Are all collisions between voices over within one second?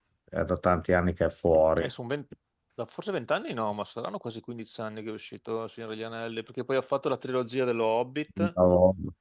Yes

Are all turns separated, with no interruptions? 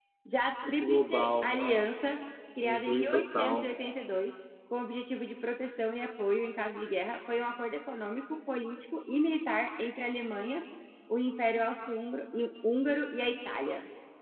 No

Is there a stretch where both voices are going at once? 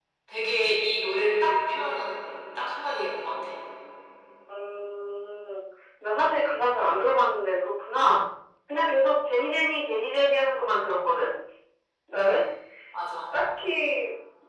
No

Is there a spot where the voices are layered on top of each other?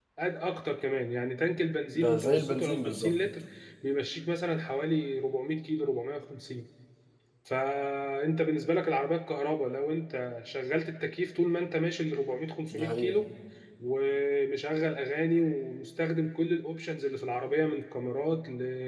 Yes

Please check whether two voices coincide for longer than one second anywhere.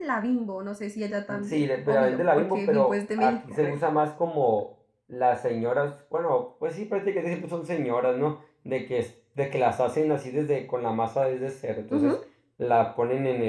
Yes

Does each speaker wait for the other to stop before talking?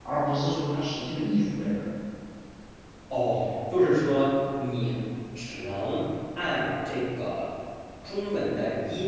Yes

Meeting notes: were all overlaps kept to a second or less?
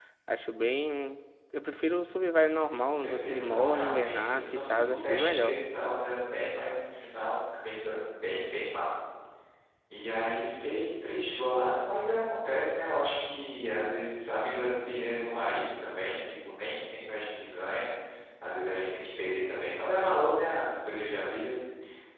No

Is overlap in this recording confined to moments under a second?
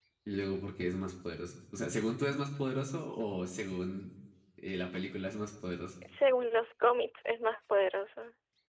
Yes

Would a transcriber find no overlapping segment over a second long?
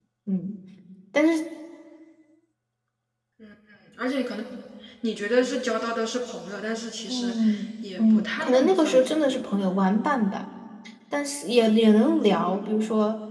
No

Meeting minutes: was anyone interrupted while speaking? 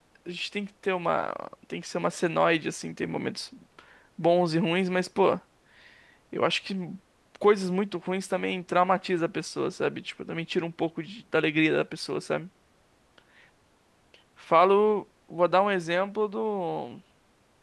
No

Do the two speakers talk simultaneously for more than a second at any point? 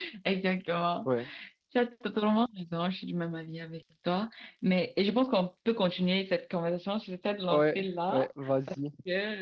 Yes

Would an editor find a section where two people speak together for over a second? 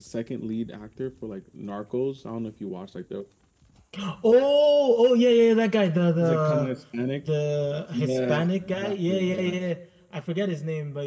Yes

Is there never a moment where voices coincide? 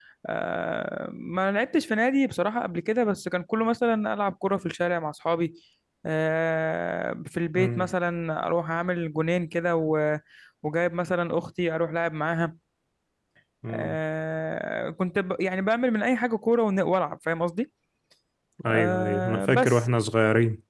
No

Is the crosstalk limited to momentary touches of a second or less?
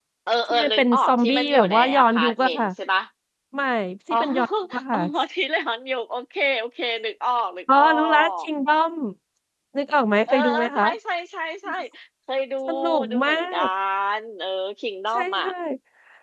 No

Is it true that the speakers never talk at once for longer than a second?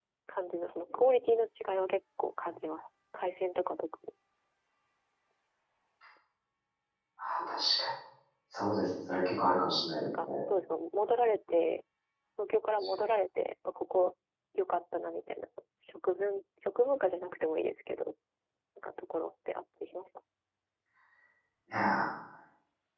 Yes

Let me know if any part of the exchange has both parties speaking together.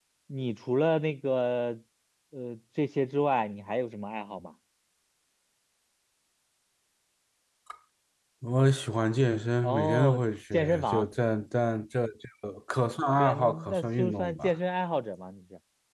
Yes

